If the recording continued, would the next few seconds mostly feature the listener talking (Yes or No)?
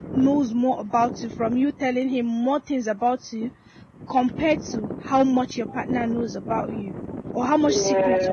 No